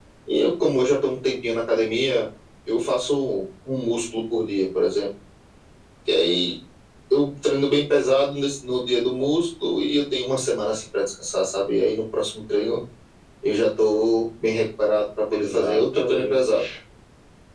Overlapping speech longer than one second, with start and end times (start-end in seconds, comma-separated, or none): 15.3-16.6